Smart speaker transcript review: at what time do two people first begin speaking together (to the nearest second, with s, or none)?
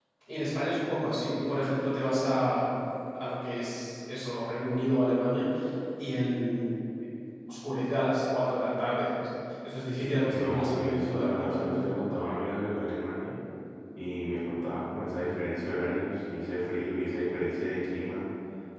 10 s